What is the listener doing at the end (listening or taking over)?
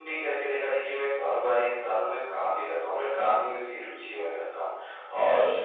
listening